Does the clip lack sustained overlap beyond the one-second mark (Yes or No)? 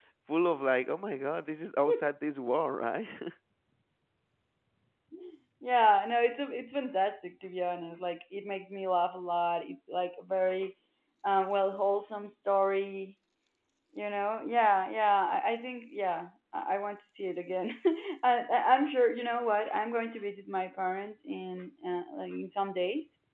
Yes